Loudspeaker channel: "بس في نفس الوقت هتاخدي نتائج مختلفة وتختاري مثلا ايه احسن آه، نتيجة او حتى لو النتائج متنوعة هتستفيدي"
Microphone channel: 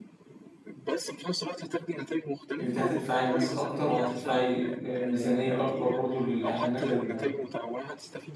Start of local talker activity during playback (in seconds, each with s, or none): 2.6 s